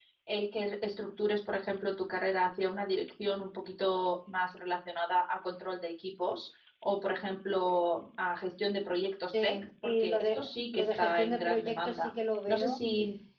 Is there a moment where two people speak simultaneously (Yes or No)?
Yes